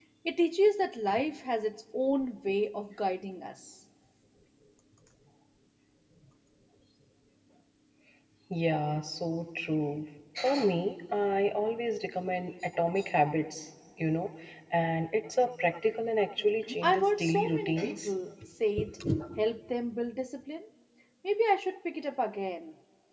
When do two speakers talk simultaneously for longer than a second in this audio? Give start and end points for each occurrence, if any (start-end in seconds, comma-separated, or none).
16.8-18.1